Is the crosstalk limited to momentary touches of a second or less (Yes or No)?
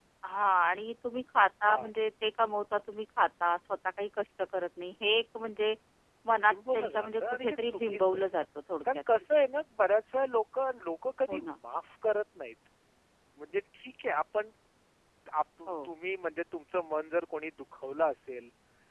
No